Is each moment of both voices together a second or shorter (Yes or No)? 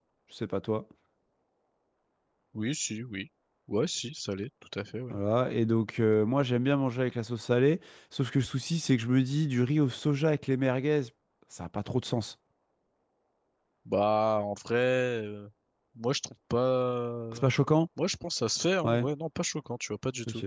Yes